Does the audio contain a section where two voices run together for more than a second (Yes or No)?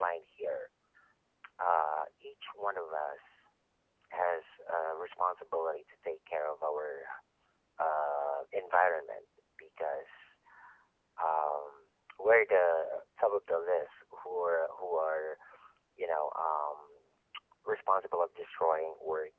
No